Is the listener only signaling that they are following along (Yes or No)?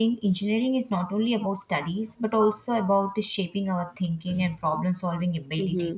No